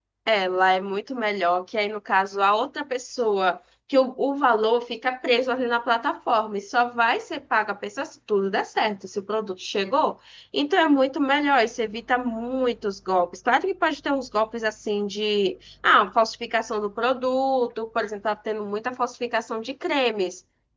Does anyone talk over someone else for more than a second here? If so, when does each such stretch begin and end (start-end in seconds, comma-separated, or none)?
none